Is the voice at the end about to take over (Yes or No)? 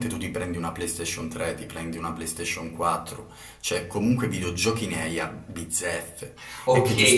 Yes